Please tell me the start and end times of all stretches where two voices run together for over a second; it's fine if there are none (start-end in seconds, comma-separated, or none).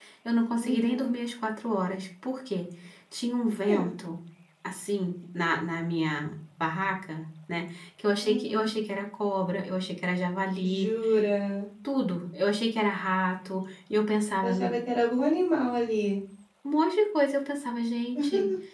none